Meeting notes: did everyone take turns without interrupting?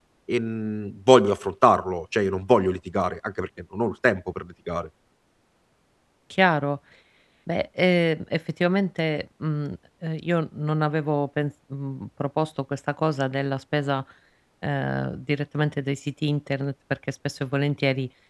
Yes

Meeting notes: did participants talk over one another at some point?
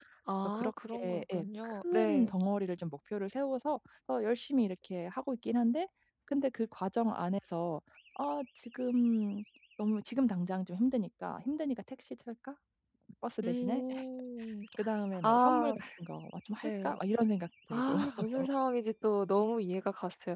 Yes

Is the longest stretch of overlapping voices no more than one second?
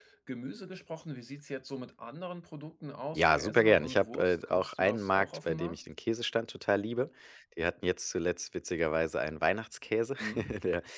No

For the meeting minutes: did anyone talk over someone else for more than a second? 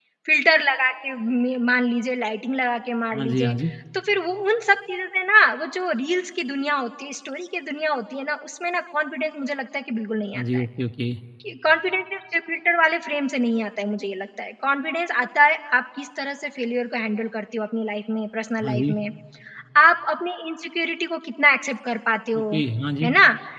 No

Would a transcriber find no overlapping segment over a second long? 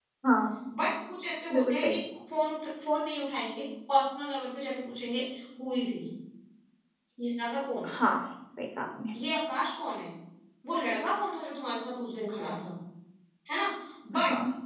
Yes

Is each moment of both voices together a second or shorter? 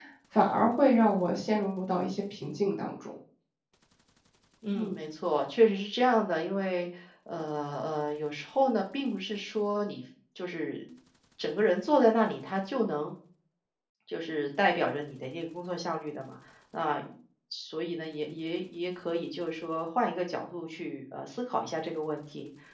Yes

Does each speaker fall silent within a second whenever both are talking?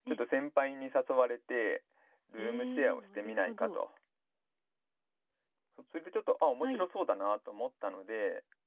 No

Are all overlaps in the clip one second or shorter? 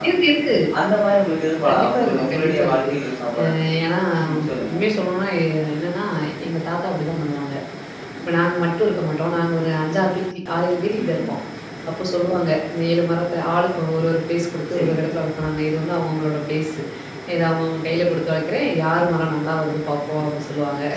No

